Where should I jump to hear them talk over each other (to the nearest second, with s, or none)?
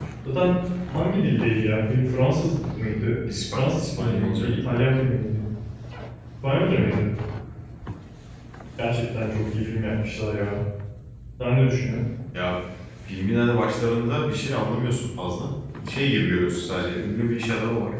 3 s